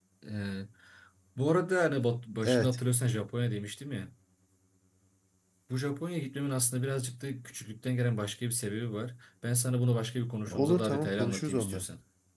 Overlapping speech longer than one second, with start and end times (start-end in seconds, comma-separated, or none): 10.5-11.8